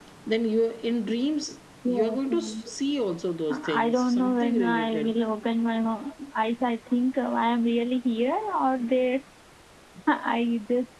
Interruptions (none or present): present